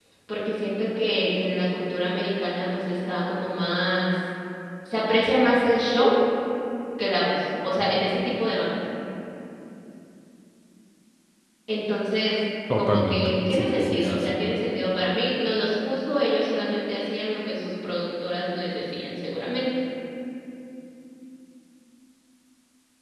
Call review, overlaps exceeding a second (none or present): present